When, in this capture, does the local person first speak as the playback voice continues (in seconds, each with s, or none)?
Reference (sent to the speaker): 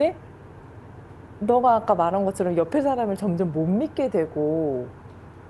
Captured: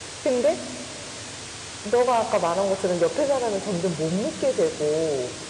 none